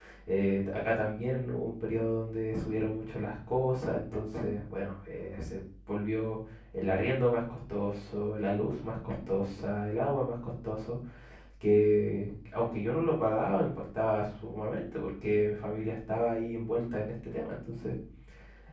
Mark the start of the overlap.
none

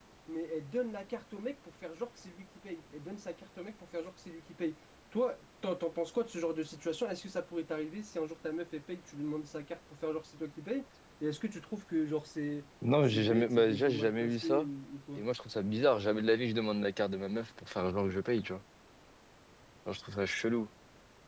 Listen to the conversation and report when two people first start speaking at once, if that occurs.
12.8 s

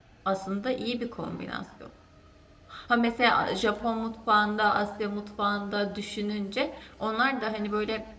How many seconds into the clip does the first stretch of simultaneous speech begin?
none

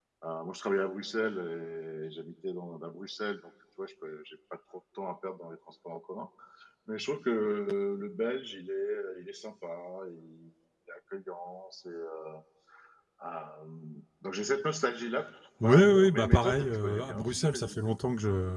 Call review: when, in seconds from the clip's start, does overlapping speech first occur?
15.6 s

